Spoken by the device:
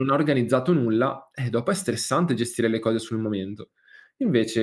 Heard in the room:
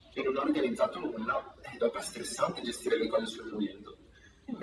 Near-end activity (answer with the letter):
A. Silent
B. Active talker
A